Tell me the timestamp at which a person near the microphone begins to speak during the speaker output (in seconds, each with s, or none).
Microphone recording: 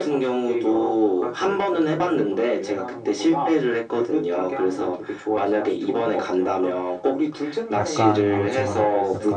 7.8 s